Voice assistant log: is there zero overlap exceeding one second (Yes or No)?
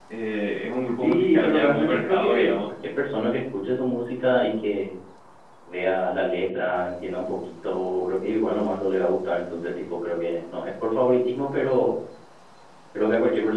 No